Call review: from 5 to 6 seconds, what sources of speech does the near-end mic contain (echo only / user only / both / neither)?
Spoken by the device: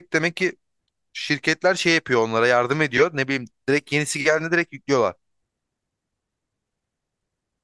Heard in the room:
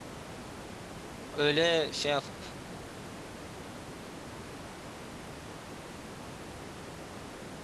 neither